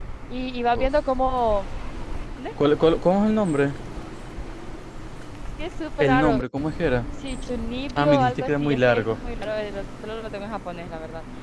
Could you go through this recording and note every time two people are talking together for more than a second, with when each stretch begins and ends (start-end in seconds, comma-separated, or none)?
7.9-9.2